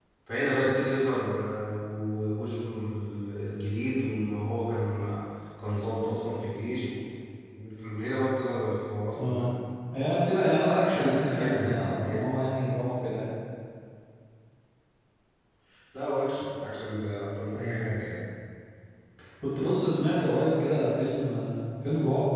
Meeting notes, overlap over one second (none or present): present